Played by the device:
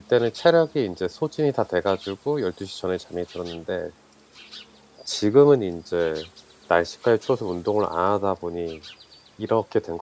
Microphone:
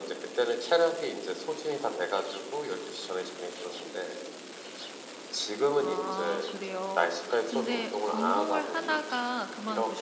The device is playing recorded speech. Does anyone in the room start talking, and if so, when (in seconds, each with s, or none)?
5.8 s